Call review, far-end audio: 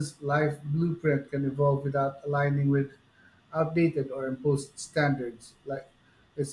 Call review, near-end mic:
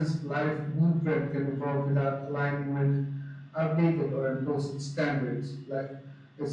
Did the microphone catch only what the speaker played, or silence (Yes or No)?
Yes